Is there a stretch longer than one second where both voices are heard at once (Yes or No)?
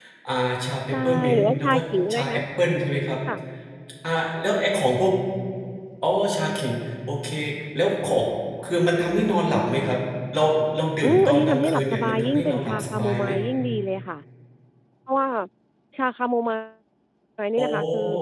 Yes